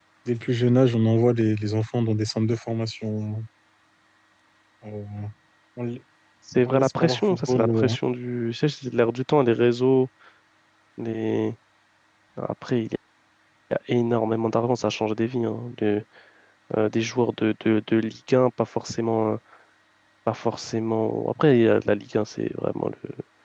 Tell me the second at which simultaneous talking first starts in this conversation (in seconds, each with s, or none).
6.7 s